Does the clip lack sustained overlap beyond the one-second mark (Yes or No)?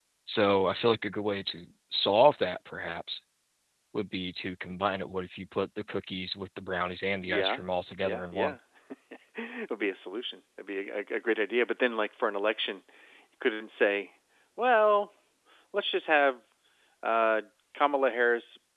Yes